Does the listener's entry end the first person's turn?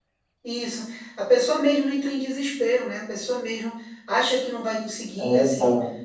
No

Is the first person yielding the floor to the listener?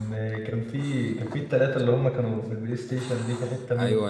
Yes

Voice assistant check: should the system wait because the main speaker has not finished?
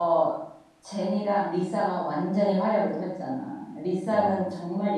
Yes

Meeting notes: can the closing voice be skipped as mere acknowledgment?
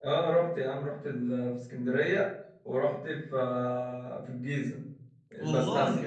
Yes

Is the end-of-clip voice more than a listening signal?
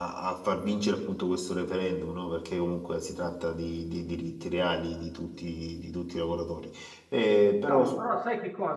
Yes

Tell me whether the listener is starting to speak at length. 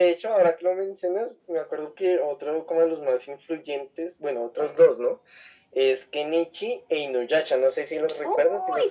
Yes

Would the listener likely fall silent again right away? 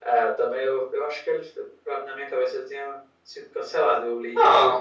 No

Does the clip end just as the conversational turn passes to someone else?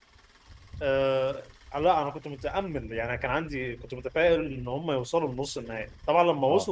No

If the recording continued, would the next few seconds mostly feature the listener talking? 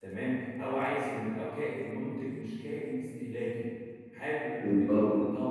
No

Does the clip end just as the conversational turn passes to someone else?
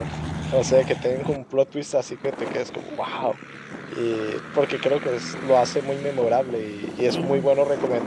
No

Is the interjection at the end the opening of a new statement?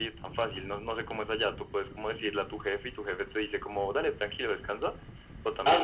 Yes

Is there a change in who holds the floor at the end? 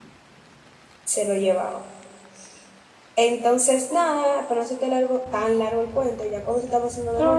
Yes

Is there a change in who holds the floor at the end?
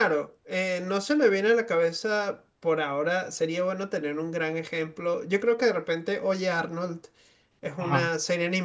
No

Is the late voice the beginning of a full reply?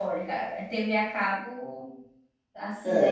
No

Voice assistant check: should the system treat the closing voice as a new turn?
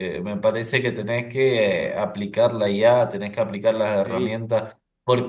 No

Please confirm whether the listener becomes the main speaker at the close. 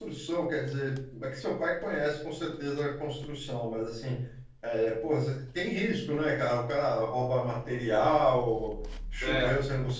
No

